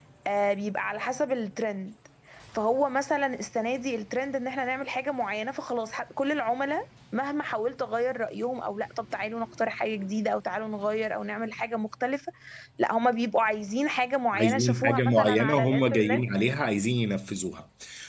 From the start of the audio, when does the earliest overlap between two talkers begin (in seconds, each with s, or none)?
14.3 s